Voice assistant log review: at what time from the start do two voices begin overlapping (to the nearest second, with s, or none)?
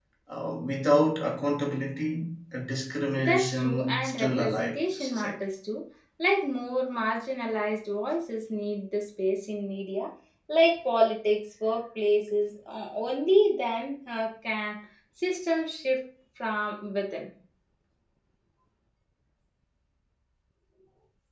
3 s